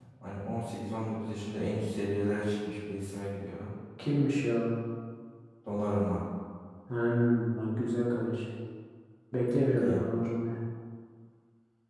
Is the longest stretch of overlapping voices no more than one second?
Yes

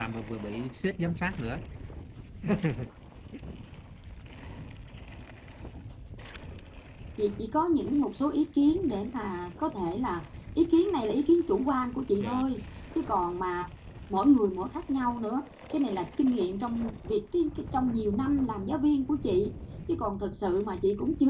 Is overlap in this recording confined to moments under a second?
Yes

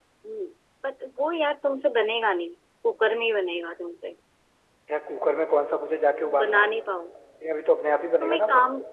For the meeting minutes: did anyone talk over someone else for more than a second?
No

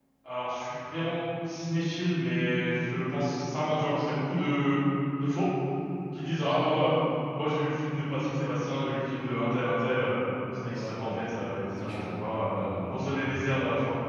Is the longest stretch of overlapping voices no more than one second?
No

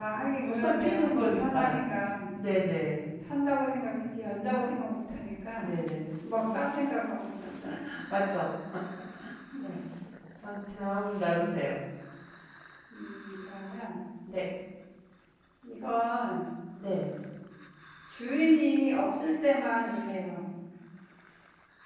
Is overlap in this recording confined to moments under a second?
No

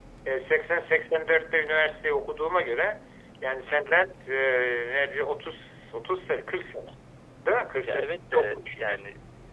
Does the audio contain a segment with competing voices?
Yes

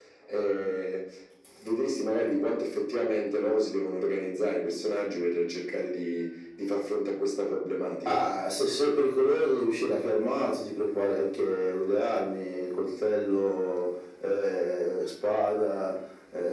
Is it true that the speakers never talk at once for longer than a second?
Yes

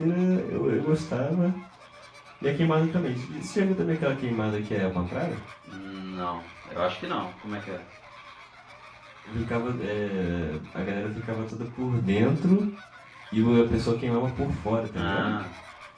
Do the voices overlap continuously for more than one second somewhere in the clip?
No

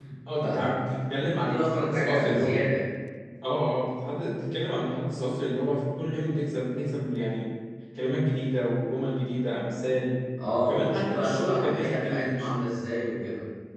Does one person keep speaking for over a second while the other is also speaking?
Yes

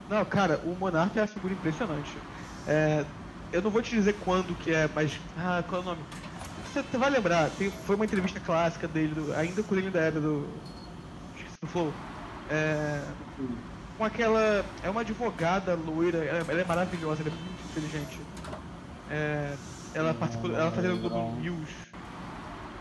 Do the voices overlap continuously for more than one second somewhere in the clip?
Yes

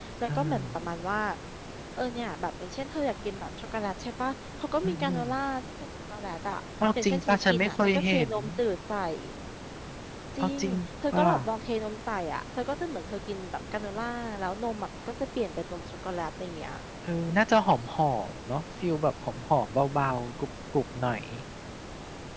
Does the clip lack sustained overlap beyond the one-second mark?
No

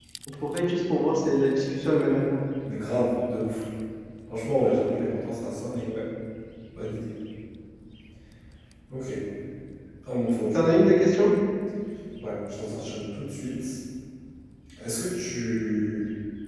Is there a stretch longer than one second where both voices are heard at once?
No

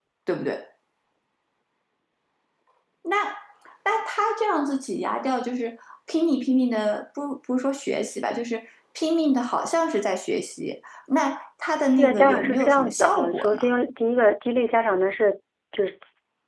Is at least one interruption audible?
Yes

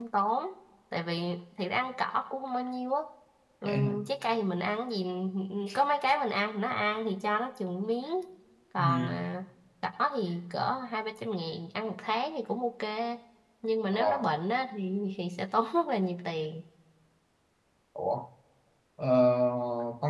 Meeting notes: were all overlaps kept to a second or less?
Yes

